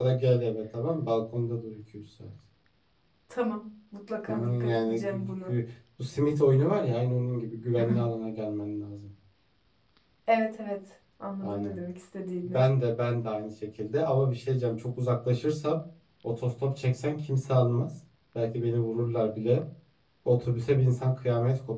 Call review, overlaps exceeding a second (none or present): present